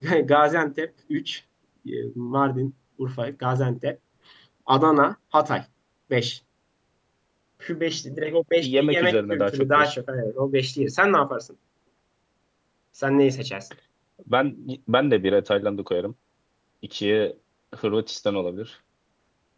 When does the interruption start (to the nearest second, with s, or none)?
9 s